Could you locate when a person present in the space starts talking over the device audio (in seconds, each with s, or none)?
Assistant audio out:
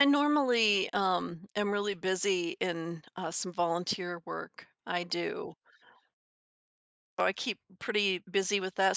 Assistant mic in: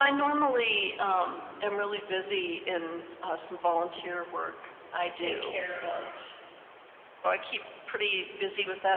5.0 s